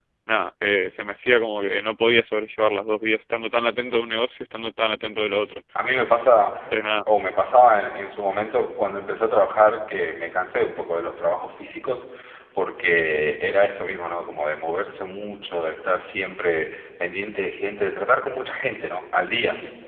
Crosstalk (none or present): none